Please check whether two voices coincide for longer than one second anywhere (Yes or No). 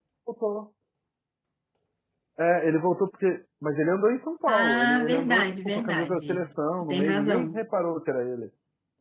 Yes